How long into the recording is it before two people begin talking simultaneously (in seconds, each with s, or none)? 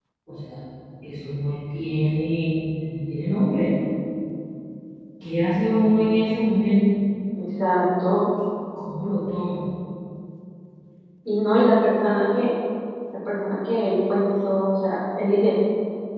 none